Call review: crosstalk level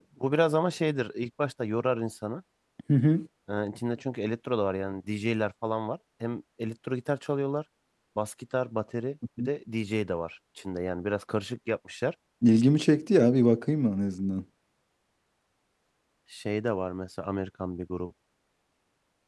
none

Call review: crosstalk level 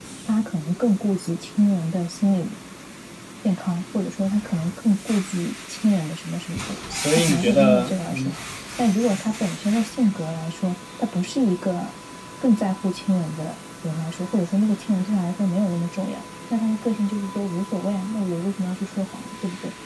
present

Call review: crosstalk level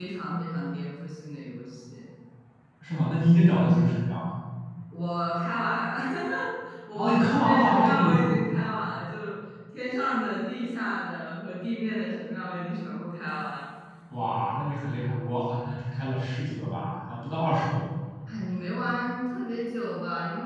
present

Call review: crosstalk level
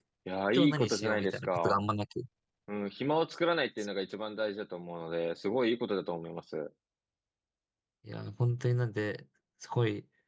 present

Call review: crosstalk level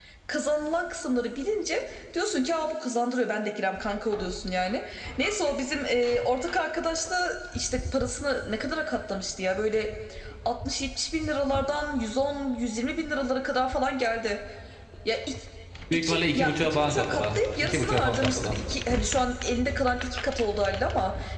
present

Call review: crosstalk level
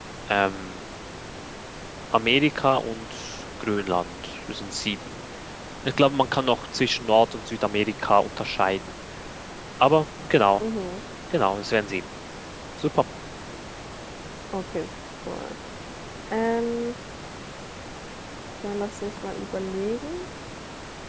none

